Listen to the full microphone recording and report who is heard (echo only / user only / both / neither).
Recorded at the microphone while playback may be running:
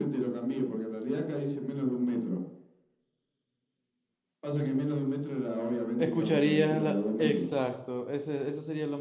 both